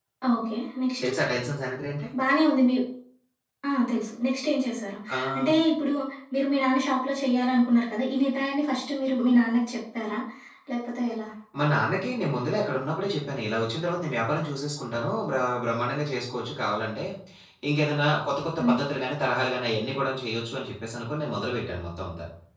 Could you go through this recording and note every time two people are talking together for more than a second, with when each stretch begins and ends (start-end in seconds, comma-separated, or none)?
none